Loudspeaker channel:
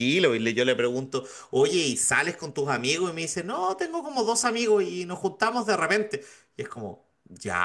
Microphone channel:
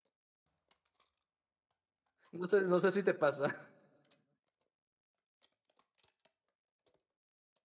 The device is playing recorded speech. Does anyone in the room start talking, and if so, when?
2 s

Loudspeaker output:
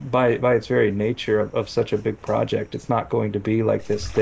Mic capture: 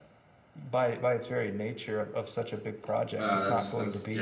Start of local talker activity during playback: 3 s

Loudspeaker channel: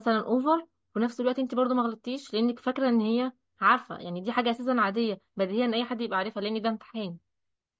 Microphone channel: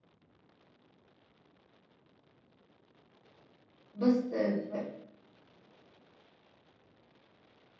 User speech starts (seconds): 4 s

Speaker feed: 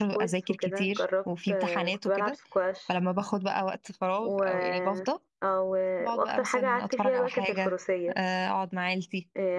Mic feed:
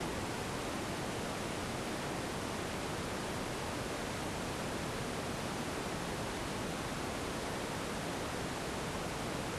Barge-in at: none

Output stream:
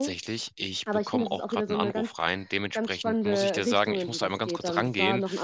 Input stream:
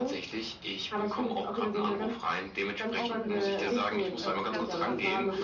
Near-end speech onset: 3 s

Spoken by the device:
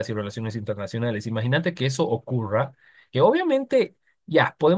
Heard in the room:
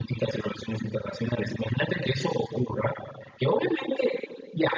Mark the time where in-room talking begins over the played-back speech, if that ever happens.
none

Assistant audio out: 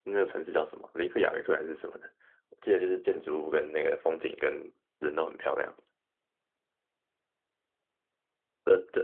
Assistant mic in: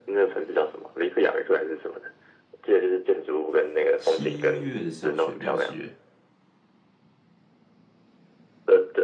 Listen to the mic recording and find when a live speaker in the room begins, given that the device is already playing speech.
4 s

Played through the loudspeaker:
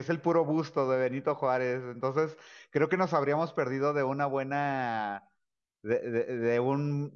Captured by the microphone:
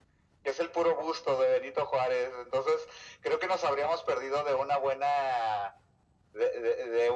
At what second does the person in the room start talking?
none

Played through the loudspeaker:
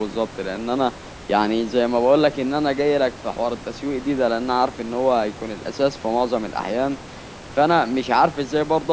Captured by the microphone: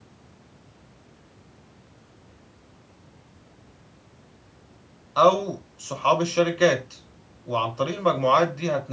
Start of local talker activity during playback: 5 s

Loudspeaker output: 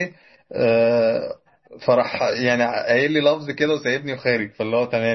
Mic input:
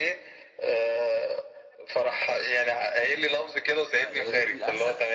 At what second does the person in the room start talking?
4 s

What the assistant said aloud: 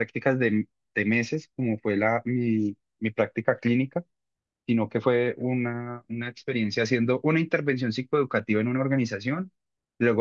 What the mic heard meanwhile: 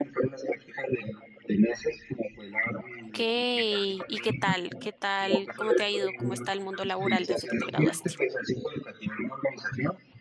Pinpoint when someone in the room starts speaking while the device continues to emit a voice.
3 s

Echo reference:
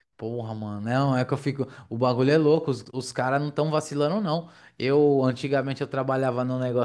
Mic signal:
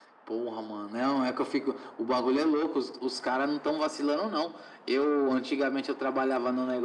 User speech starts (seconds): none

